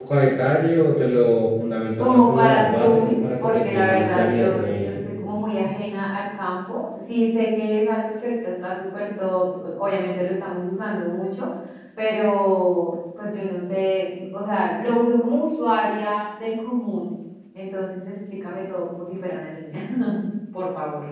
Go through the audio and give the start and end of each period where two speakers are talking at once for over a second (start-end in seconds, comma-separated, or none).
2.0-5.0